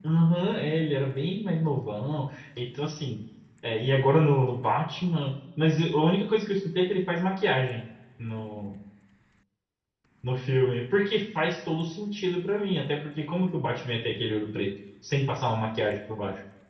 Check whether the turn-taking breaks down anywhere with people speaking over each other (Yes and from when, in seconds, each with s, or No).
No